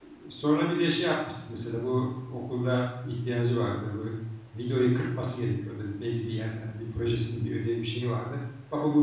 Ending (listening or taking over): listening